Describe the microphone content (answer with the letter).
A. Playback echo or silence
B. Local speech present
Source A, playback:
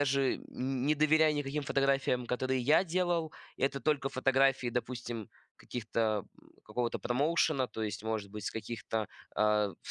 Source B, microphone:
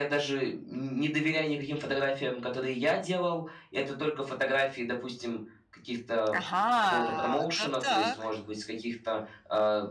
B